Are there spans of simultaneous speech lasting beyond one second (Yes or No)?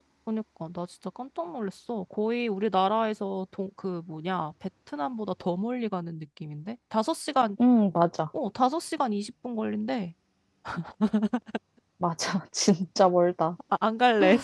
No